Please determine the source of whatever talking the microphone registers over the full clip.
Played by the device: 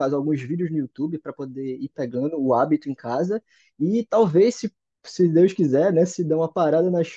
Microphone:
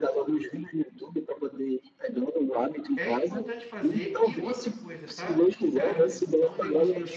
both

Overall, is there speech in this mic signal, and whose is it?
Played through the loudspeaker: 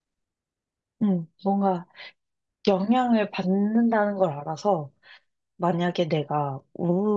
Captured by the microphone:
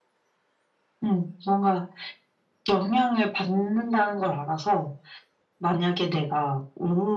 echo only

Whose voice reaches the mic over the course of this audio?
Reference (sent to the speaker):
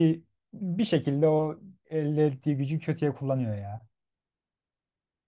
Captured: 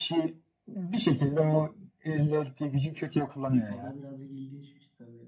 both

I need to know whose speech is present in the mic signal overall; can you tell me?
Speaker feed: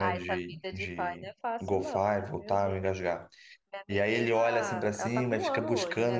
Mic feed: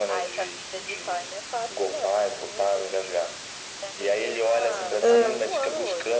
both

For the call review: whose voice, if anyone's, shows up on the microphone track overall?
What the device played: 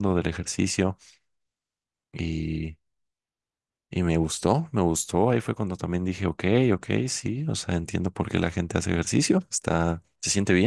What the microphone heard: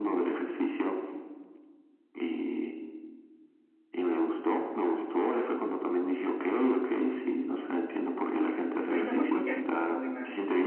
both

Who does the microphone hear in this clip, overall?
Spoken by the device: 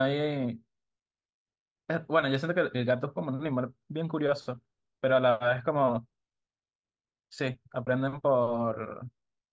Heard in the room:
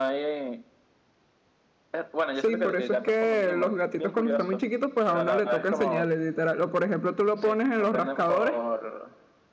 both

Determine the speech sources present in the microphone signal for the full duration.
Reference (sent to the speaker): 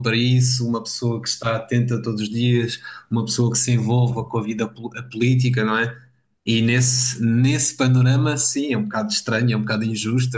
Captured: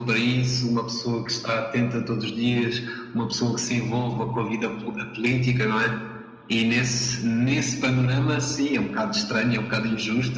echo only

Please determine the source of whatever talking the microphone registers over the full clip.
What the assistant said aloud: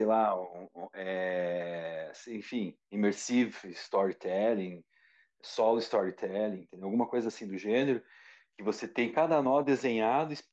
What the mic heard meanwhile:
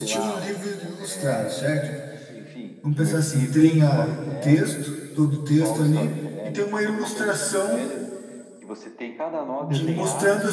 both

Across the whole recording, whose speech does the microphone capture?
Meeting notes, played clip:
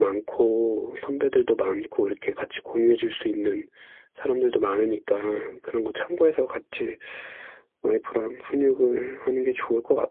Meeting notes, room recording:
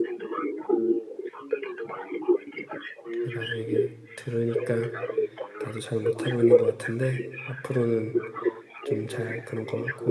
both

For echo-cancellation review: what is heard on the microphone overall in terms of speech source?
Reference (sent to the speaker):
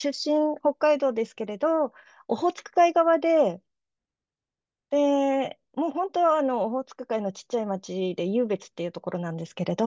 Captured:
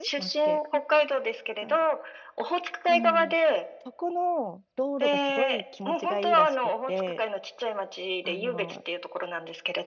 both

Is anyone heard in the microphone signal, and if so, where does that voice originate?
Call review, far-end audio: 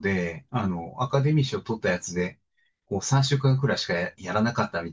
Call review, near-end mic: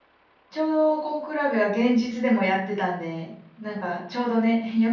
user only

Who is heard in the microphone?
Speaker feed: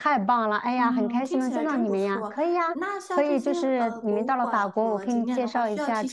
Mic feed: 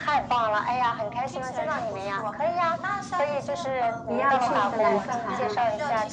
both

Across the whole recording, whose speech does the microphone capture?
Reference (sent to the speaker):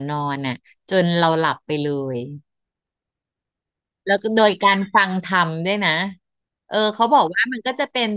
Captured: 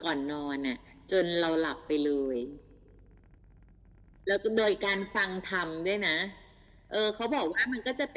echo only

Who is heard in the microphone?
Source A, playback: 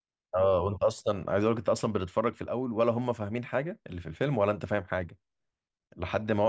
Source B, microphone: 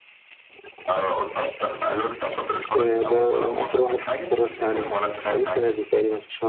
both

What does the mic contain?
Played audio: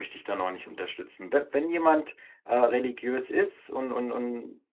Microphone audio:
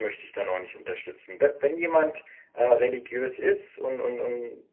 echo only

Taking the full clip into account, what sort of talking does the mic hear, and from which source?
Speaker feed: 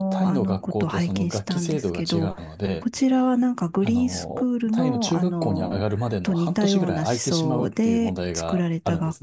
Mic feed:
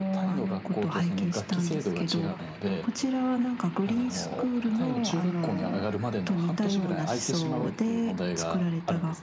echo only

